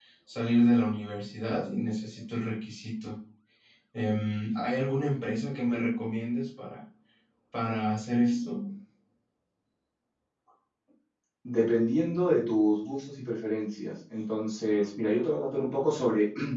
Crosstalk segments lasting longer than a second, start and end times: none

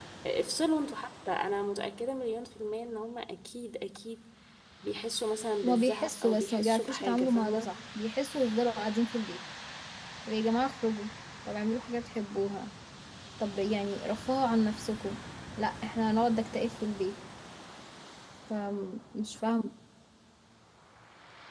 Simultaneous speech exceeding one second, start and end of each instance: 5.6-7.7

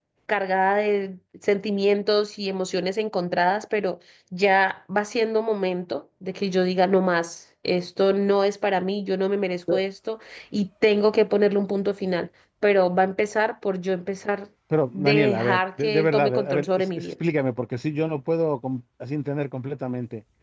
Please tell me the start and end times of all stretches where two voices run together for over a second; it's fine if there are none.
14.9-17.1

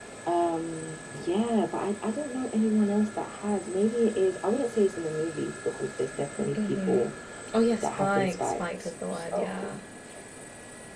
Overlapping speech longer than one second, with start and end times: 7.8-9.8

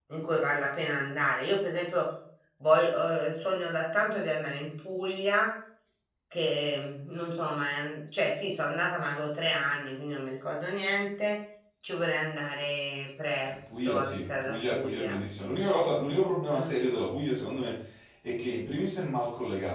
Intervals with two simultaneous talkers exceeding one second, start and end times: 13.5-15.2

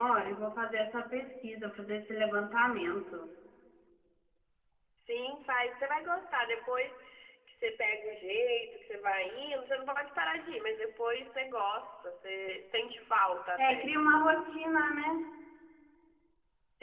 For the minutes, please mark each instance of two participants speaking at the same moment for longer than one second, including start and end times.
none

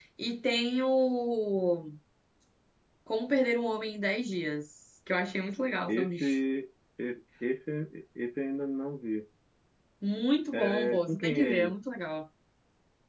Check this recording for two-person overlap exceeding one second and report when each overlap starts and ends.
10.5-11.7

